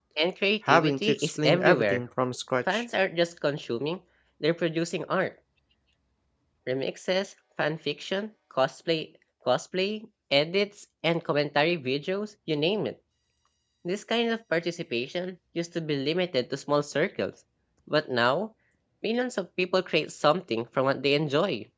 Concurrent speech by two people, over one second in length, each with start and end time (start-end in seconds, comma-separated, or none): 0.7-2.0